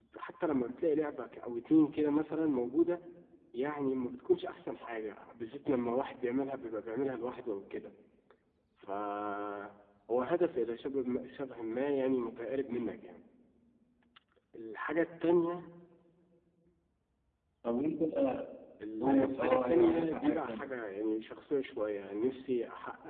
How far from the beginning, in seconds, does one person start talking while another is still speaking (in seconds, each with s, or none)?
19.0 s